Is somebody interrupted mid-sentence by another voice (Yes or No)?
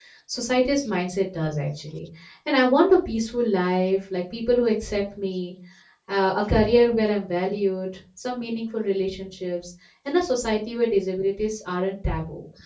No